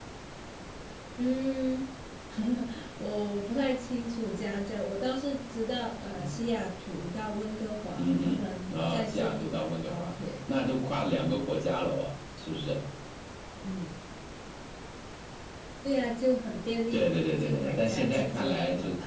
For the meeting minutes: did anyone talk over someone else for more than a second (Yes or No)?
Yes